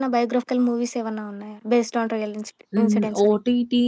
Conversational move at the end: taking over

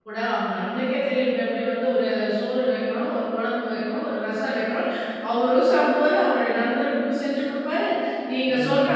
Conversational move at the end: listening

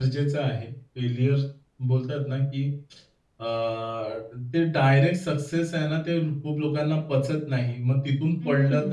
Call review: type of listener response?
listening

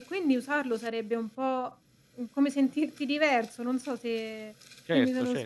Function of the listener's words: taking over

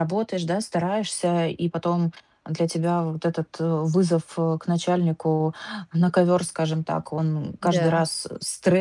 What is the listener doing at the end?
listening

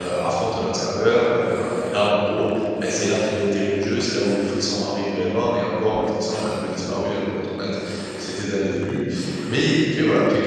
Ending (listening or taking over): listening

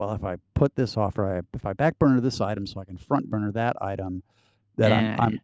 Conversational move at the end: listening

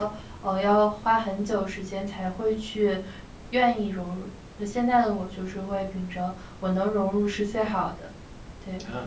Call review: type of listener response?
taking over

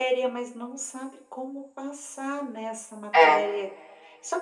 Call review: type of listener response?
listening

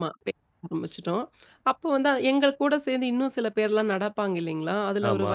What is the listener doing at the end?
listening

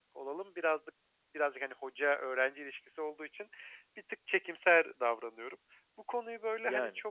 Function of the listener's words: listening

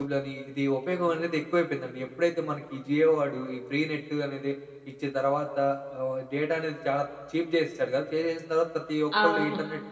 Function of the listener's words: listening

